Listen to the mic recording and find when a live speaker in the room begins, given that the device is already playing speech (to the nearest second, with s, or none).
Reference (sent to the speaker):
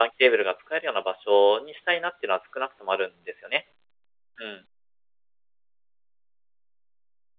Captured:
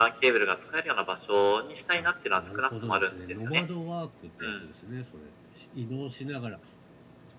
2 s